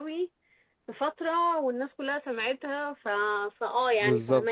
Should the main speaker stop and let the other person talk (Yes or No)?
Yes